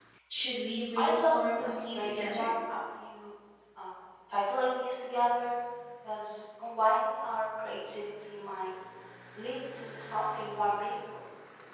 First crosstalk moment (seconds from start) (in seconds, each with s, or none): 1.0 s